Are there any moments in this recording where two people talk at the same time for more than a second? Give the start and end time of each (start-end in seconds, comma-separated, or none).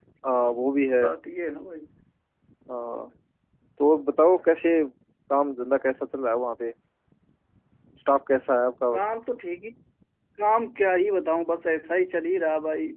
none